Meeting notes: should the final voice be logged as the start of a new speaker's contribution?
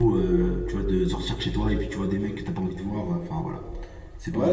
Yes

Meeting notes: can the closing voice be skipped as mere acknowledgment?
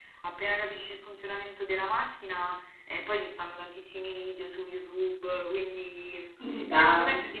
Yes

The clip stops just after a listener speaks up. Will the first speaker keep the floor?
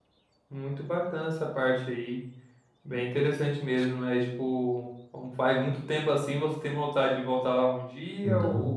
No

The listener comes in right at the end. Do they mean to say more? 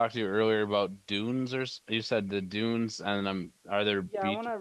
Yes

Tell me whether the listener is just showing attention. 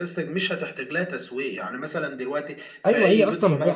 No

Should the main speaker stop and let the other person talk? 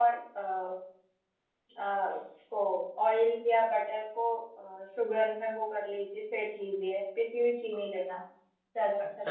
Yes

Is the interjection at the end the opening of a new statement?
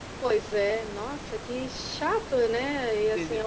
No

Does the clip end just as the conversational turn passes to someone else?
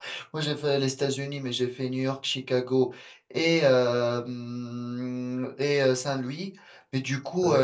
No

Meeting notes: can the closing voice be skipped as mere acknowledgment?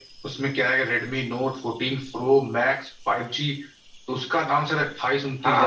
Yes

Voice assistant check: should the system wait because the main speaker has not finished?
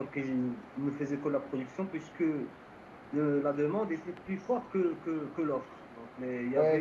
No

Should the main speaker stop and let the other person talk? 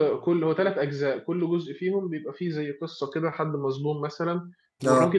No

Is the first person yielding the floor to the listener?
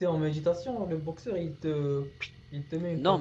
Yes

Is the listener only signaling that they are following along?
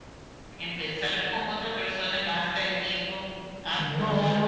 No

